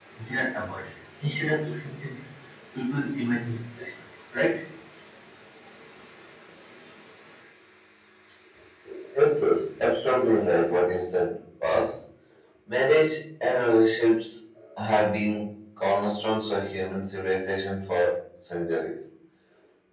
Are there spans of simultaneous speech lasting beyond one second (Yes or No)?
No